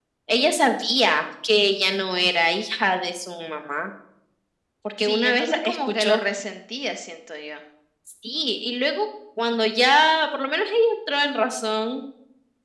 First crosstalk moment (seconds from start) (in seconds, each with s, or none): 5.0 s